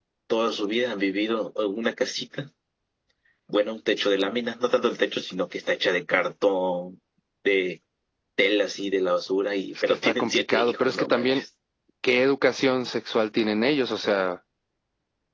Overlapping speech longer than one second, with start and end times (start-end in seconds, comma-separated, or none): 9.8-11.4